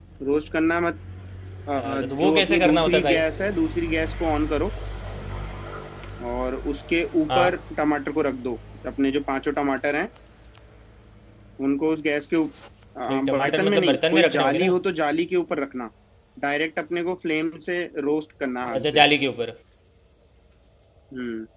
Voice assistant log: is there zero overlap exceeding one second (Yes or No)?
No